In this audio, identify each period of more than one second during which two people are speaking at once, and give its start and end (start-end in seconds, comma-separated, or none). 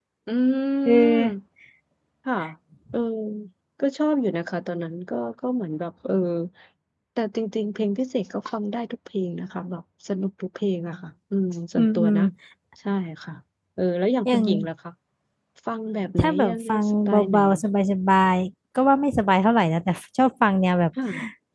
16.2-17.6